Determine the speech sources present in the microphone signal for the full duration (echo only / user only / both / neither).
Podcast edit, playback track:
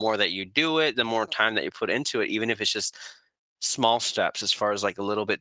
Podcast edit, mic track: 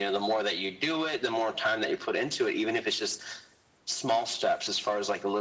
echo only